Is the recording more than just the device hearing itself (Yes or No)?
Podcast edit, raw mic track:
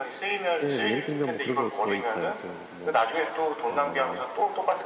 Yes